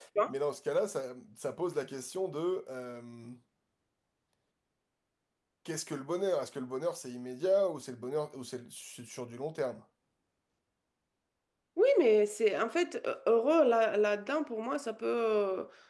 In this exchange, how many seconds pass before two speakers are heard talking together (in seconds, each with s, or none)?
none